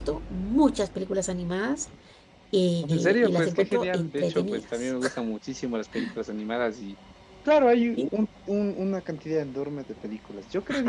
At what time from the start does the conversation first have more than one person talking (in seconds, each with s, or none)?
2.8 s